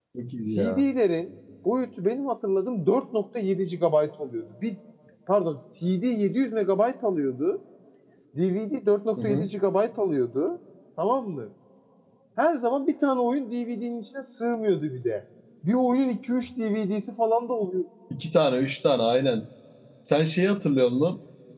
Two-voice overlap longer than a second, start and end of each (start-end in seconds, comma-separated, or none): none